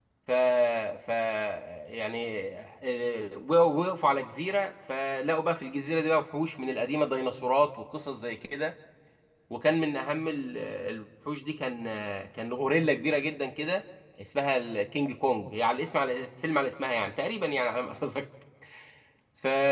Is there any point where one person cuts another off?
No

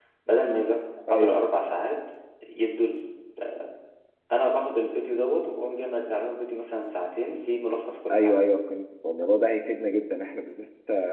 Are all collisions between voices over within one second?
Yes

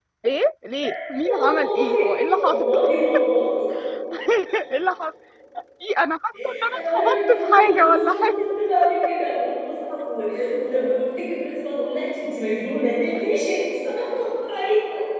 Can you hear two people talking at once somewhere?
Yes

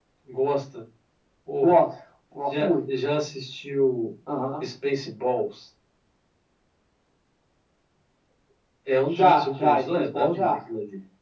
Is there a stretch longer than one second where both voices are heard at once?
Yes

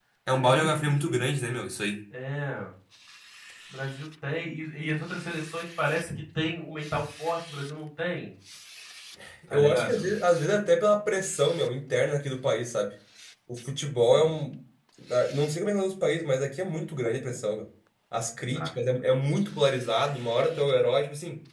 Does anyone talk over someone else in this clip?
Yes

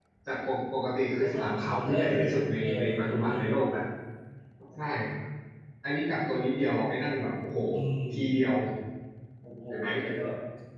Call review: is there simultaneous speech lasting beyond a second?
Yes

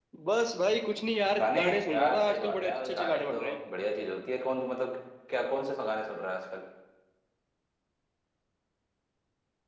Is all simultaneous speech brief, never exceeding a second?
No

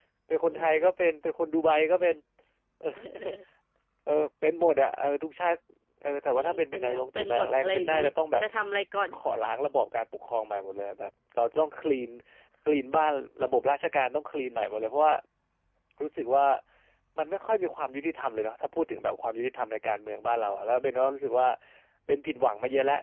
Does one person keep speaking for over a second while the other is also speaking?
Yes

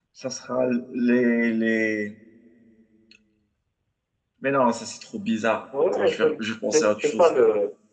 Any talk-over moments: Yes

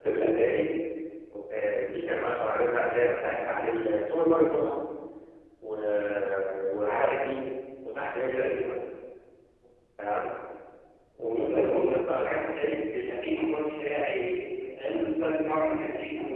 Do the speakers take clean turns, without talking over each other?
No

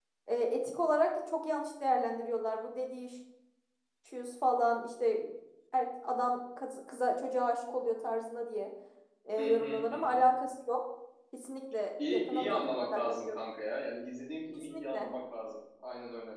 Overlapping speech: Yes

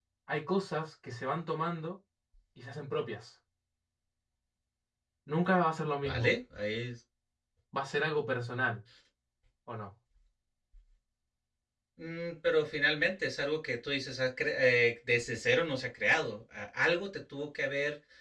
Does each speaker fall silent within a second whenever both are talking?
Yes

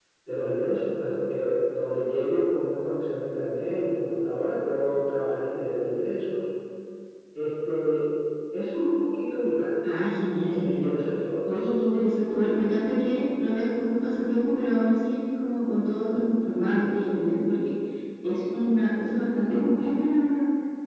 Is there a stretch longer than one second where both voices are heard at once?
No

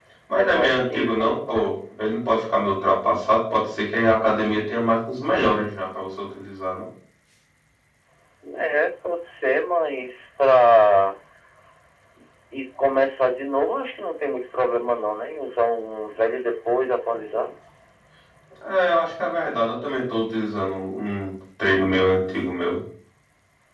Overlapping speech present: Yes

